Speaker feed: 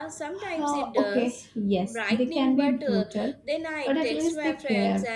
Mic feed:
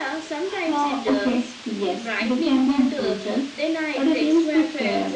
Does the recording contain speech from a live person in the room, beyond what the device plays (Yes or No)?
No